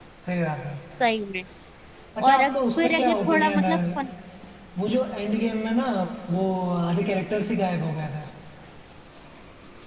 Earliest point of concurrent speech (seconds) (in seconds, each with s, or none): 2.2 s